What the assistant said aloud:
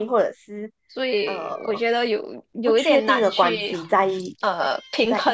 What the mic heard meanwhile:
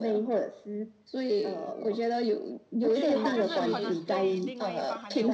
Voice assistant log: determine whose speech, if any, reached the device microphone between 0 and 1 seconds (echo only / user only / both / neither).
echo only